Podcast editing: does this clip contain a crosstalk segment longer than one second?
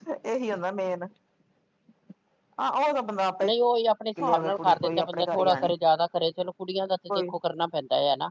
Yes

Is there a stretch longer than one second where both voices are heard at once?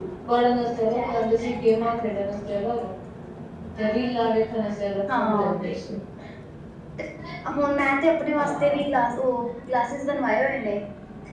No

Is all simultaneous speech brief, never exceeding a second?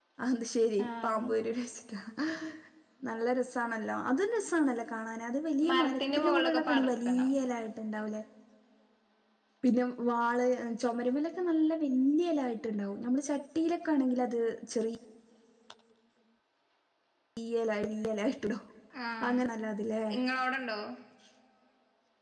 No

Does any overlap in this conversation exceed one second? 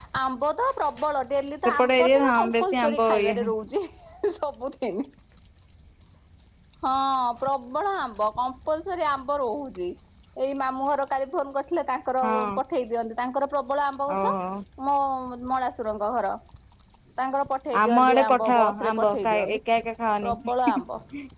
Yes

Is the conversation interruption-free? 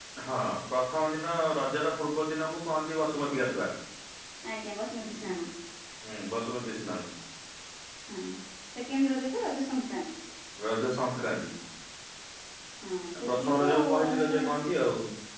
No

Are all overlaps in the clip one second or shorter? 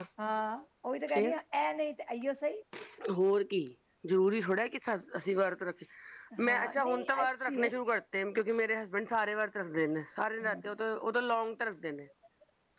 No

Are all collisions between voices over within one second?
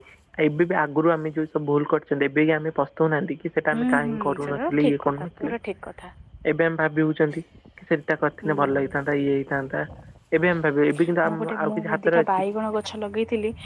No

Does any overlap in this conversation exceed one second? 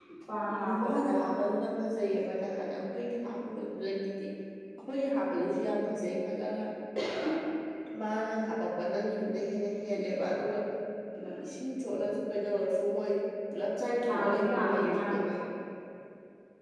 Yes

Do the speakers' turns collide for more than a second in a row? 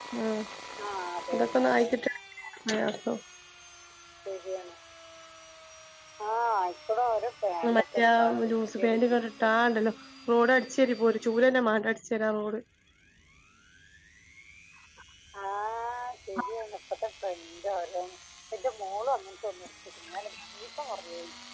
Yes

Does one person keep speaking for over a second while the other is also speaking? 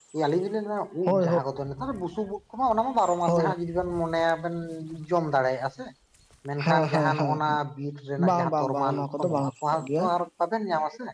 Yes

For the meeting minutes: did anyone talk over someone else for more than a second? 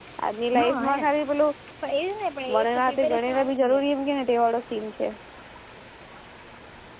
Yes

